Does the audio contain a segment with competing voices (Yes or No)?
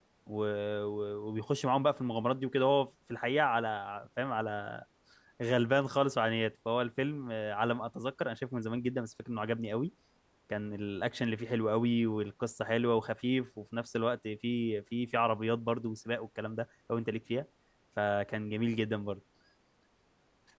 No